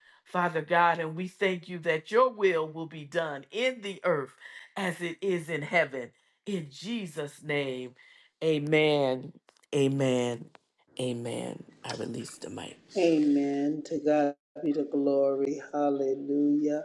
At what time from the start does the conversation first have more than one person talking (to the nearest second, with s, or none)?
none